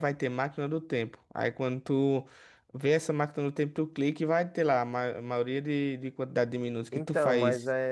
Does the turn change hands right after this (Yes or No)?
Yes